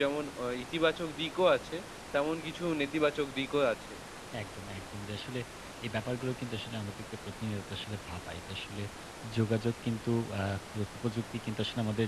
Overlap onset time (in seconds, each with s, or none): none